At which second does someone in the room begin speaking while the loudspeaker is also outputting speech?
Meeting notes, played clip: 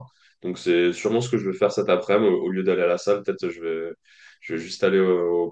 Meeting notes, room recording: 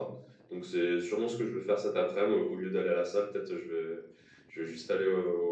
none

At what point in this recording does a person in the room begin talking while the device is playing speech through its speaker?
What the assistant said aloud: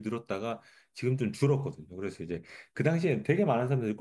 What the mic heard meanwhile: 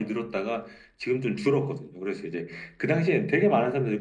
none

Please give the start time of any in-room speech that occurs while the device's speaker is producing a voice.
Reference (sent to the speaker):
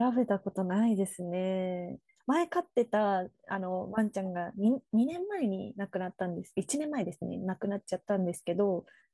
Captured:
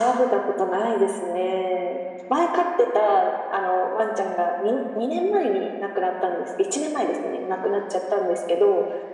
none

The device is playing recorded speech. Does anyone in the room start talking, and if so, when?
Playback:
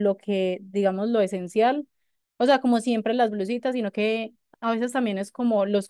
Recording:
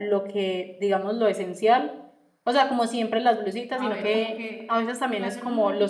4 s

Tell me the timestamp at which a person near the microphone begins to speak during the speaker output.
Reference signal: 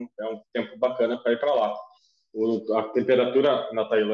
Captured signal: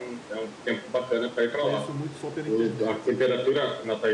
2 s

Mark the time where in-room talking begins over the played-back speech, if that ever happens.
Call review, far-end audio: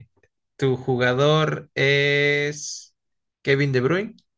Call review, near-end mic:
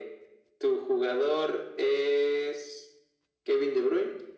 none

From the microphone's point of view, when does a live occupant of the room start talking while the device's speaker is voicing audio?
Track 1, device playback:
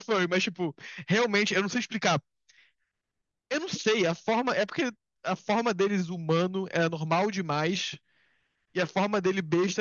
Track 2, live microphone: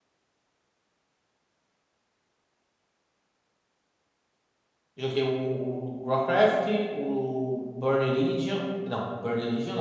5 s

